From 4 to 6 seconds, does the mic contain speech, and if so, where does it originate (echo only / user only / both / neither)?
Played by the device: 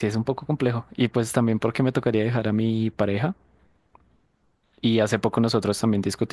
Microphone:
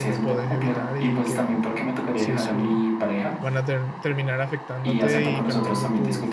both